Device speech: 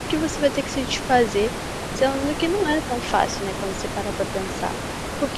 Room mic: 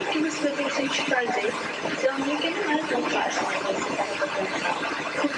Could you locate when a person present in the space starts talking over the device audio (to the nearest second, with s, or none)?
none